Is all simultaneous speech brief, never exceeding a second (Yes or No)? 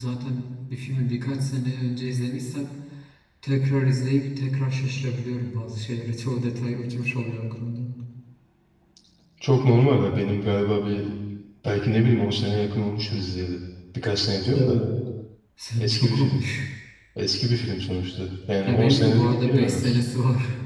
No